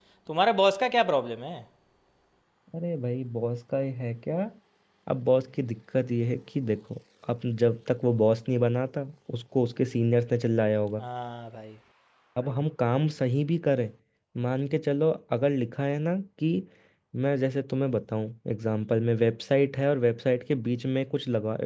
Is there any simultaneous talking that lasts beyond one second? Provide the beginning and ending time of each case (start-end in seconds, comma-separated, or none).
none